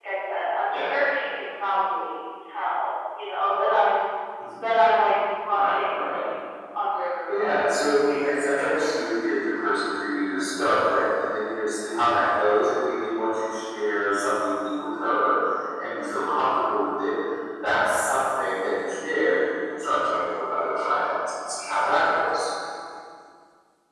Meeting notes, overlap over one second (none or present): present